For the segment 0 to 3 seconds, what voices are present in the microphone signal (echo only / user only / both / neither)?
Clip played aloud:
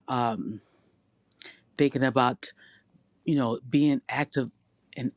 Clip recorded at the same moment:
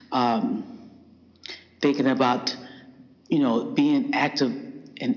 echo only